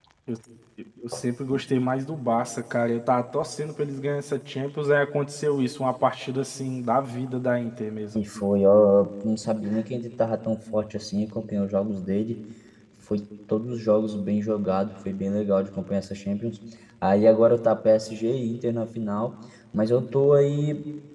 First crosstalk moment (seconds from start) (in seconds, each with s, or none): none